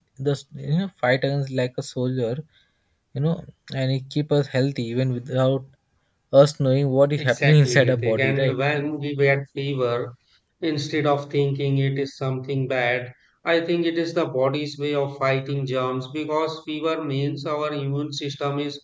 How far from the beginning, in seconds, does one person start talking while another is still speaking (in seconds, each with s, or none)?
7.2 s